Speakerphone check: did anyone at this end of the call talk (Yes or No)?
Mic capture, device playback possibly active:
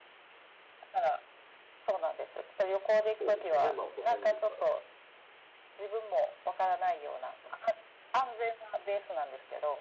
Yes